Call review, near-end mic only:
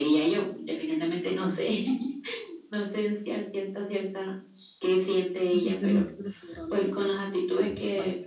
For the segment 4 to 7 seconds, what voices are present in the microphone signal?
both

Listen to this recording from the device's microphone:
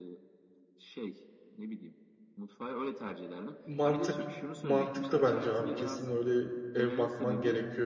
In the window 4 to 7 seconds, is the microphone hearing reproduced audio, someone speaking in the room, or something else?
both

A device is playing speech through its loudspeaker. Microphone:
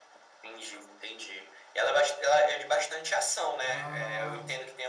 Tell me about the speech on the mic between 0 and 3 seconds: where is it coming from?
echo only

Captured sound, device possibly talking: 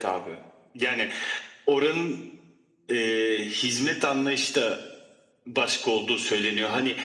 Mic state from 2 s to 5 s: echo only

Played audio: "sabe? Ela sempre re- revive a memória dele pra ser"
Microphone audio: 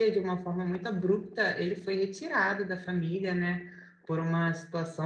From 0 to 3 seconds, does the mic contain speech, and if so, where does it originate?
user only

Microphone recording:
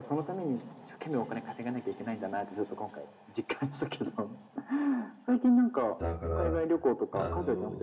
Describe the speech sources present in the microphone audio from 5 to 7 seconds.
both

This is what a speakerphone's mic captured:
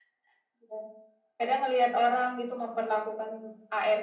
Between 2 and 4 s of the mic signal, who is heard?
echo only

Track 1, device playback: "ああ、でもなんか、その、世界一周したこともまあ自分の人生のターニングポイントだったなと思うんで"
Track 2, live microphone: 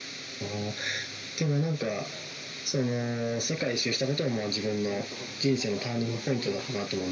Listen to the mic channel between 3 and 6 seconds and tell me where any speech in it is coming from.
both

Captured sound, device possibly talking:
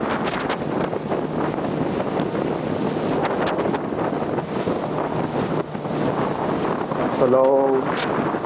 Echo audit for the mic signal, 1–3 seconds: neither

